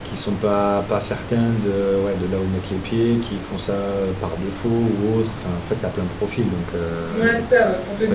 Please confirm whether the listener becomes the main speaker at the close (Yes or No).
Yes